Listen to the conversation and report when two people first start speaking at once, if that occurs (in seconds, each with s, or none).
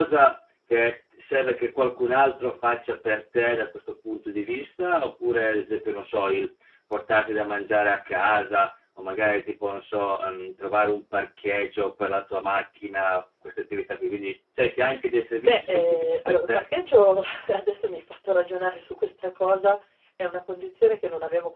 15.4 s